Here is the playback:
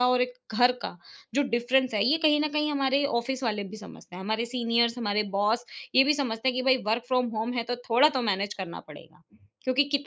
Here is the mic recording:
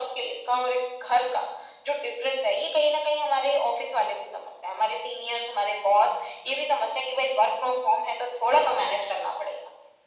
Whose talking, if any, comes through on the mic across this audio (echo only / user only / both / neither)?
echo only